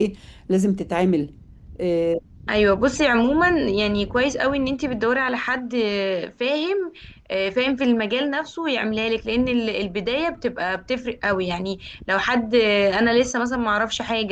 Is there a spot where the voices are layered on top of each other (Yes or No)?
No